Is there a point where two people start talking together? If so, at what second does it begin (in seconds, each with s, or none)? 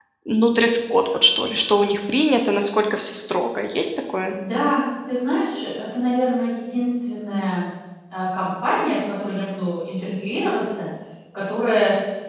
none